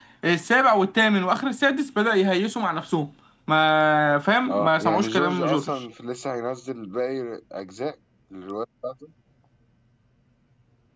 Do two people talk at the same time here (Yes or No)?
Yes